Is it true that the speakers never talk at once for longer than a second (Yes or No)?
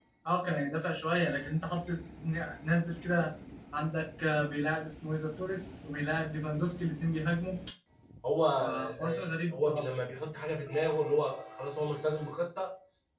No